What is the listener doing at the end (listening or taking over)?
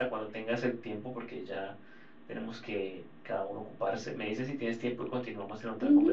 taking over